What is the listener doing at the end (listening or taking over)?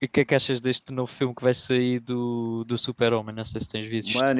taking over